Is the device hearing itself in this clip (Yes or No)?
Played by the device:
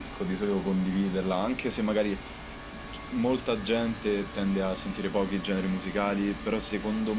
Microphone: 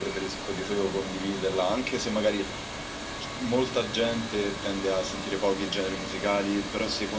Yes